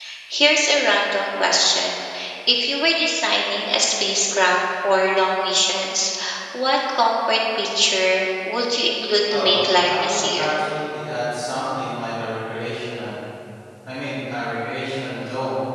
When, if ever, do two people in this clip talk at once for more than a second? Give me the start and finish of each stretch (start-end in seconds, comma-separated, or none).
9.3-10.5